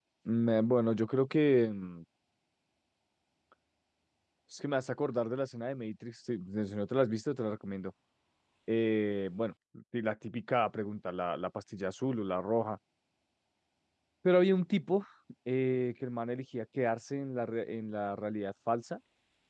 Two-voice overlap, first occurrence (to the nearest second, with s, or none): none